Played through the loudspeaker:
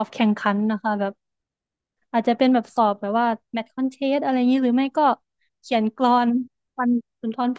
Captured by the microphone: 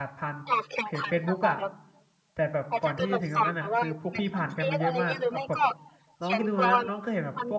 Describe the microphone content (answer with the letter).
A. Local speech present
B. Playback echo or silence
A